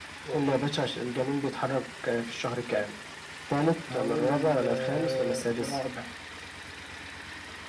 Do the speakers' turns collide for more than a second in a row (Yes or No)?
Yes